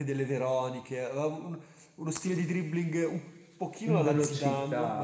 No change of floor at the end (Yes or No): No